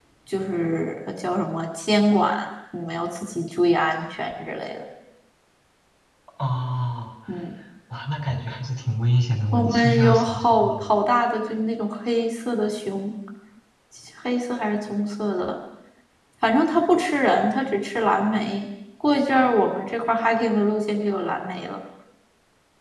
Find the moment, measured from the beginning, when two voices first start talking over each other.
9.5 s

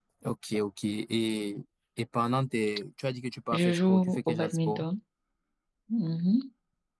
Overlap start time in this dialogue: 3.5 s

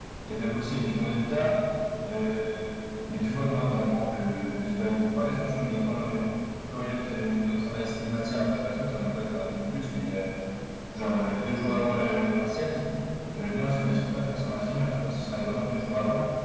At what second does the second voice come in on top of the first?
none

